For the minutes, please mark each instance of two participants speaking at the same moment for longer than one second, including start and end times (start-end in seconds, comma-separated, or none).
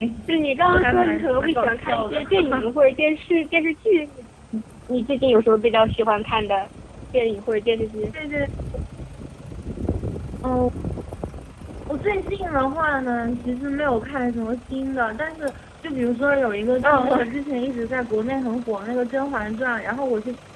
0.7-2.7